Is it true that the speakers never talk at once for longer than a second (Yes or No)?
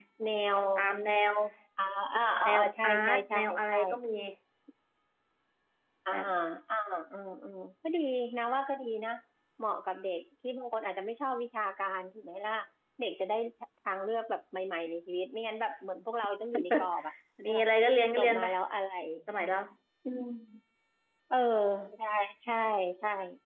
No